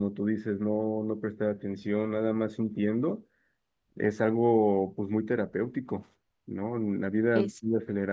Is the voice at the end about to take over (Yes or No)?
No